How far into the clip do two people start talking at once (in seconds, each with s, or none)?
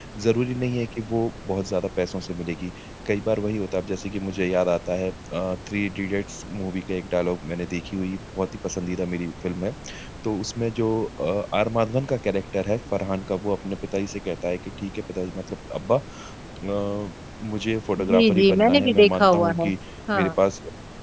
18.0 s